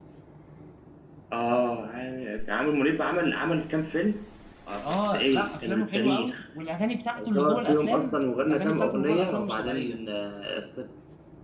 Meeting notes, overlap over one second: present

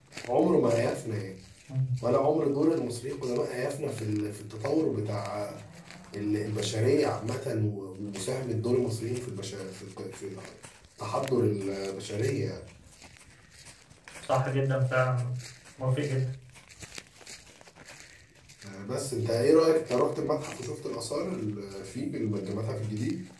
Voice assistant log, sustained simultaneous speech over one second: none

